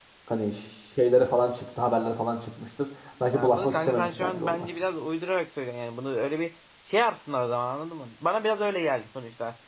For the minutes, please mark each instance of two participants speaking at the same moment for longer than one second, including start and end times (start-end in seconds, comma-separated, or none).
3.3-4.7